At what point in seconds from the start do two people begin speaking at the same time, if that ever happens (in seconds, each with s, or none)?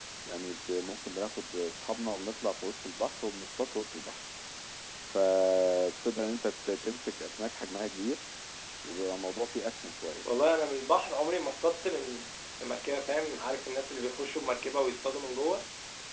none